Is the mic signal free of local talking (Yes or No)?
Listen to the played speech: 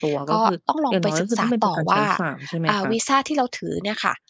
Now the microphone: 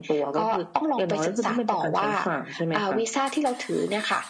Yes